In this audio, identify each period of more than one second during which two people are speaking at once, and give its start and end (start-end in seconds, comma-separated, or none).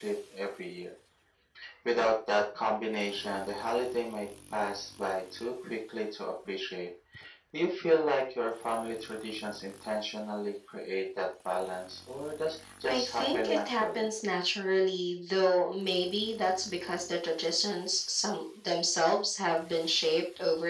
12.9-14.1